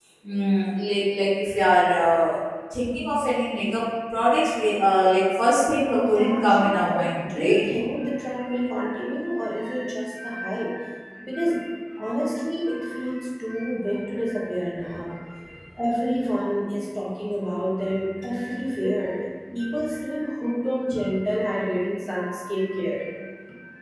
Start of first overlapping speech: 6 s

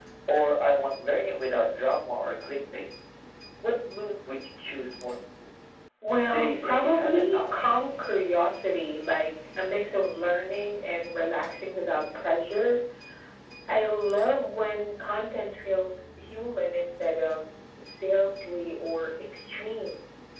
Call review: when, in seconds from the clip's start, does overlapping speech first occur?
6 s

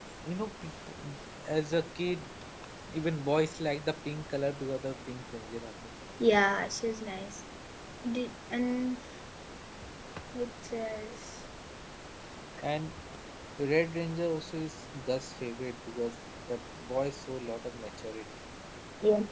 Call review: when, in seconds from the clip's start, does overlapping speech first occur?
none

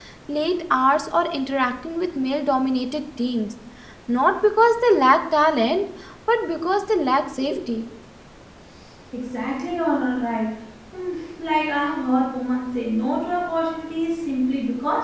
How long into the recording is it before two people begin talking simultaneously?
none

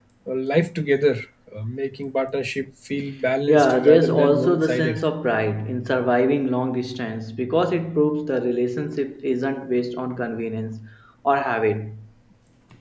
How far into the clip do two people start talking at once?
3 s

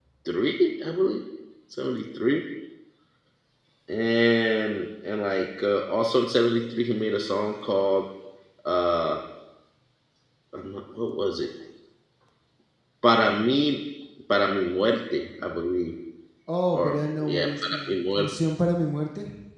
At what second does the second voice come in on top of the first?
17 s

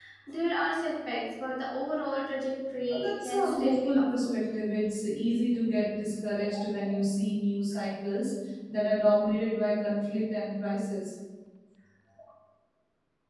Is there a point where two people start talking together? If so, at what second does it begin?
3 s

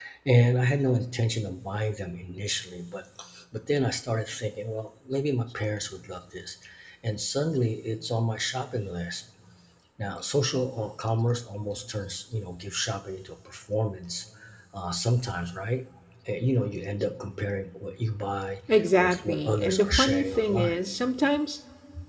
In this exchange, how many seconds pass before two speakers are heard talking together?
19 s

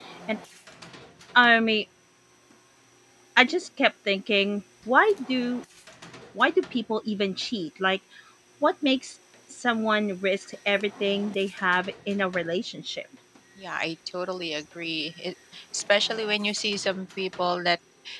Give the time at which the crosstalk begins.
none

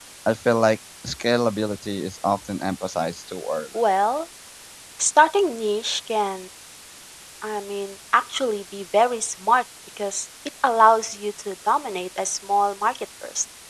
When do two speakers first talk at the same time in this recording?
none

